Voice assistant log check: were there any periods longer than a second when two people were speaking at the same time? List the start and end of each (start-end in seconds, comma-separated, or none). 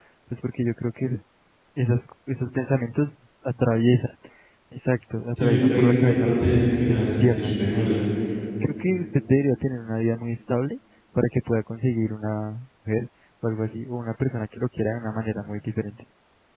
5.4-8.0